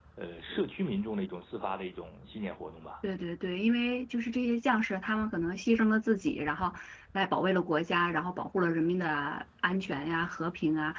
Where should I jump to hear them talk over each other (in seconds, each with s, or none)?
none